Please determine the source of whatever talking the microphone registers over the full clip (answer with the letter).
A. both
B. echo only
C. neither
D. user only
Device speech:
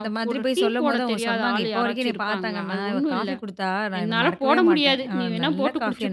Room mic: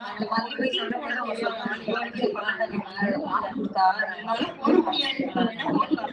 B